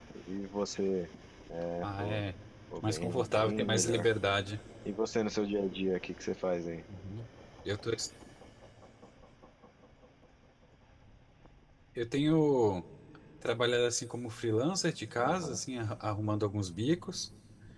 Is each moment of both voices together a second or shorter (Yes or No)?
No